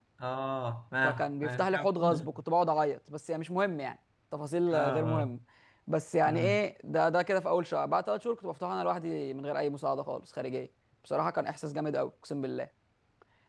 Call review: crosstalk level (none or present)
present